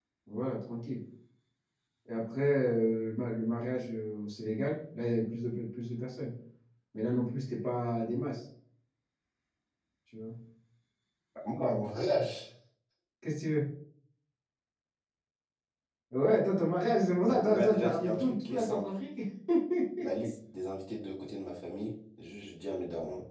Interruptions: present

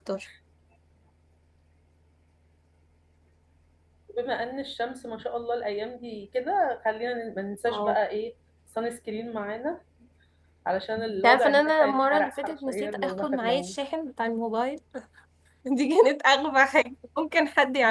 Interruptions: present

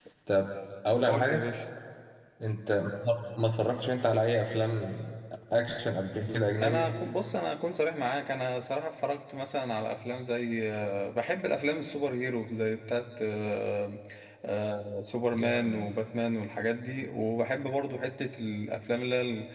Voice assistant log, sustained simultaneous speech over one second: none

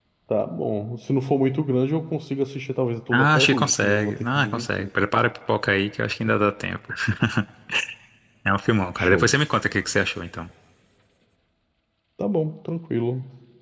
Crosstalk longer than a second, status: present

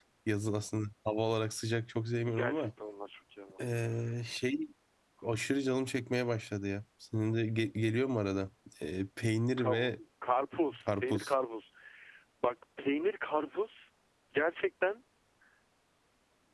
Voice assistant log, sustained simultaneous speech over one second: none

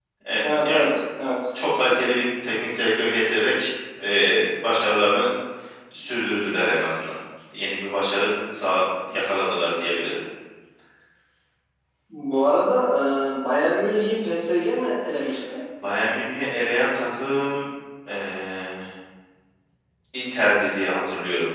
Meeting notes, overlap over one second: none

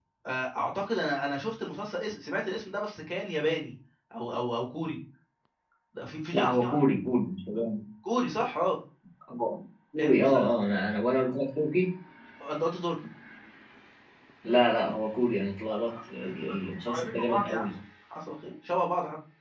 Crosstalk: present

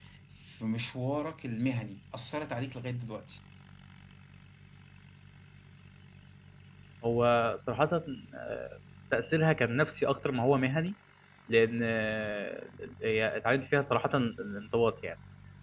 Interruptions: none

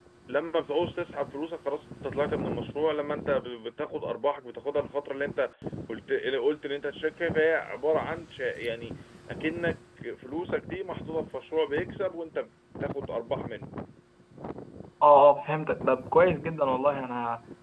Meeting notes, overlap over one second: none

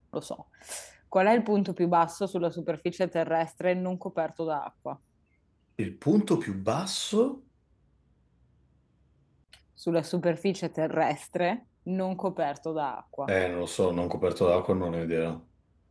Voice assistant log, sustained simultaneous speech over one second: none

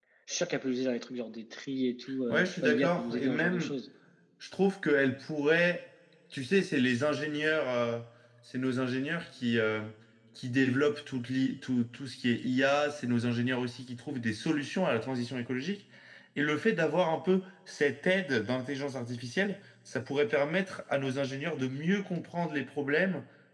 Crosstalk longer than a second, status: present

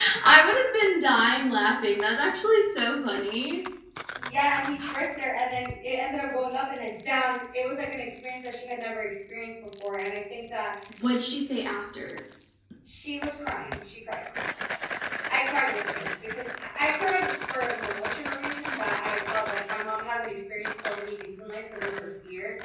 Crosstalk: none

